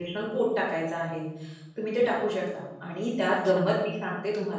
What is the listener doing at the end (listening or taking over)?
listening